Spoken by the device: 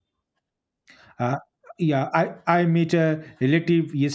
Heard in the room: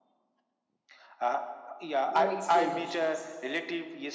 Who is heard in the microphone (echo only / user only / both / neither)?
both